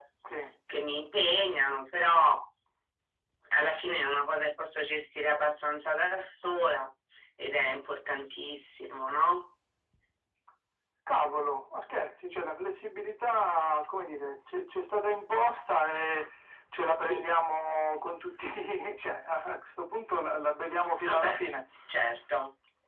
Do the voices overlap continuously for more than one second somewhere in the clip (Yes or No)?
No